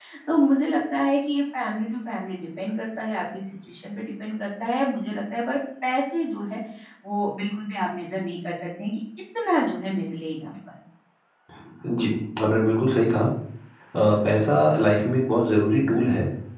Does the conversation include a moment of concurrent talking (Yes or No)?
No